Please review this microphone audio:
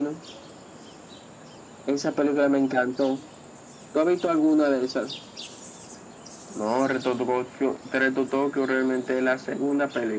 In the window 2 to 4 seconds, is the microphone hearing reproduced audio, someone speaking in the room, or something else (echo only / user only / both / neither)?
echo only